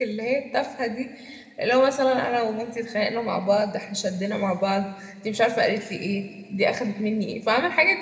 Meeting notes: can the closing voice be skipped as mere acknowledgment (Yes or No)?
Yes